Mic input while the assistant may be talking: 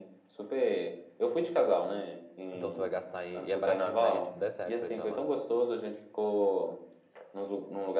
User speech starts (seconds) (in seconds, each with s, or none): 2.5 s